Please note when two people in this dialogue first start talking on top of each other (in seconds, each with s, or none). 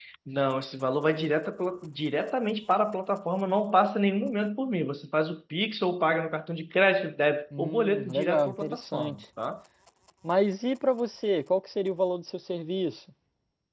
7.5 s